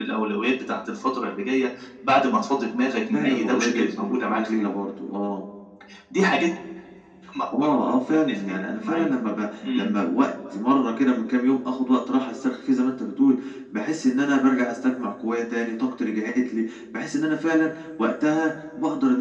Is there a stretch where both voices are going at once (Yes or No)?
Yes